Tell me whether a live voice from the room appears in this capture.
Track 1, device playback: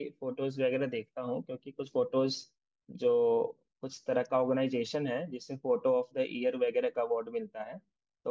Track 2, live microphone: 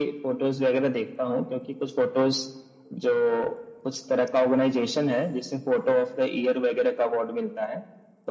No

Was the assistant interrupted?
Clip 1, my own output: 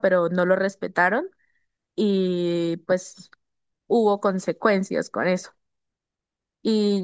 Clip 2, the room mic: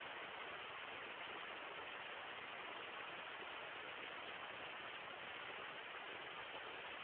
No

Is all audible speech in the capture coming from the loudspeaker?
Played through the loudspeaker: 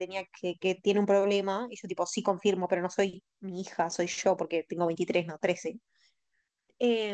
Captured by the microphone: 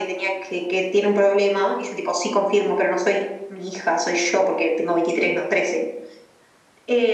Yes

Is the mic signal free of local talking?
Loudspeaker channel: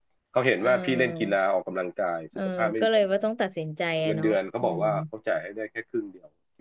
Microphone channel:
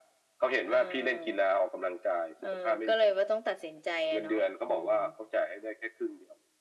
Yes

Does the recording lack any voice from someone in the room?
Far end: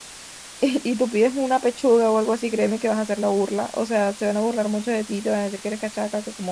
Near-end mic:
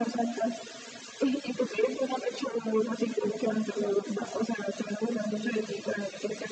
Yes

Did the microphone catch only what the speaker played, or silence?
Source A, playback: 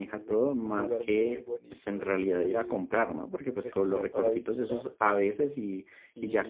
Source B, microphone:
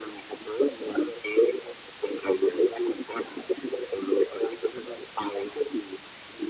Yes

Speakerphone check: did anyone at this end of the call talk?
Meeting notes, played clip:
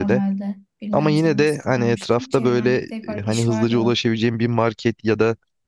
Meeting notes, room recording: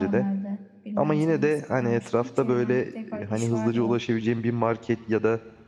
No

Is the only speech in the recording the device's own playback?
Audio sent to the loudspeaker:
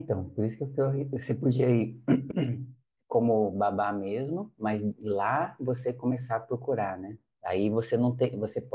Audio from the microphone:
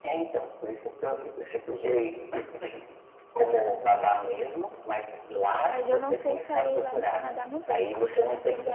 No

